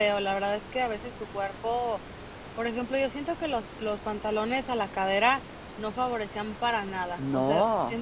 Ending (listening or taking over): listening